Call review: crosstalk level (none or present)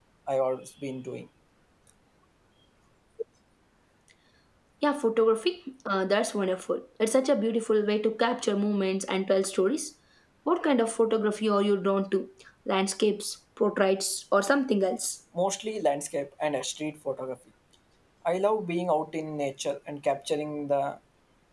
none